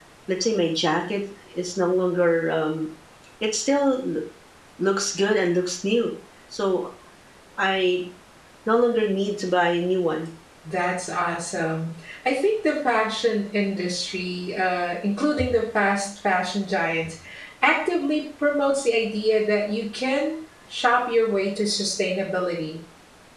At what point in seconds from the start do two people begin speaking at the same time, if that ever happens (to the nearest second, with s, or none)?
none